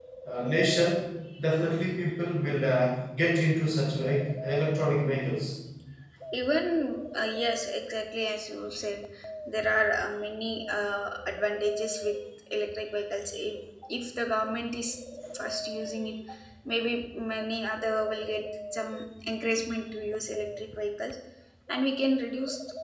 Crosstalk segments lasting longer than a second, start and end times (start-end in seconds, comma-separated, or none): none